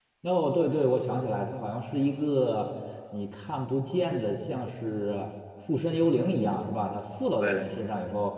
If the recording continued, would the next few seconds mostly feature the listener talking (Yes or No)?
No